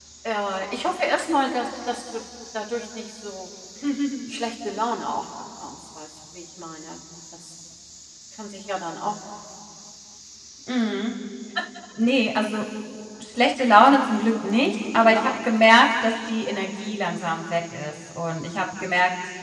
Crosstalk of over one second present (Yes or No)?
No